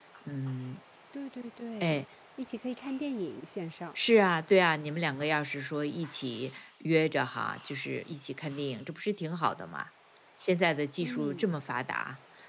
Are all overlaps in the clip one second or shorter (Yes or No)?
Yes